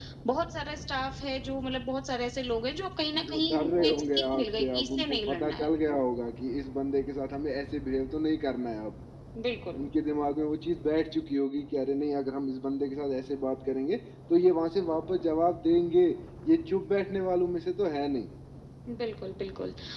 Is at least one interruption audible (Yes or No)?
Yes